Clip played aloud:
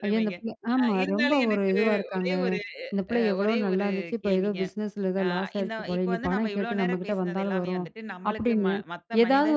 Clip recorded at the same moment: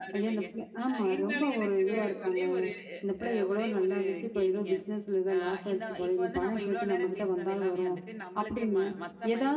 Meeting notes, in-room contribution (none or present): none